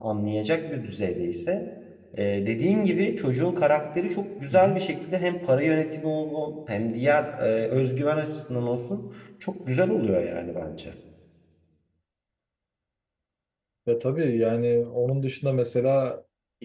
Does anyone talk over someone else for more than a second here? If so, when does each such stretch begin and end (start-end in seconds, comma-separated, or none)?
none